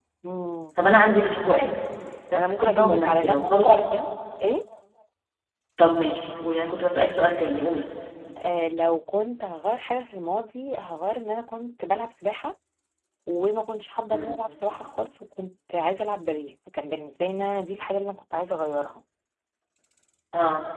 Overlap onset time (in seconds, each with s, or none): 2.5 s